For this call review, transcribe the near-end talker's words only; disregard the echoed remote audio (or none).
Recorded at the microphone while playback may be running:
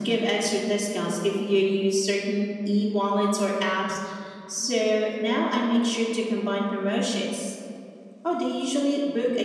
none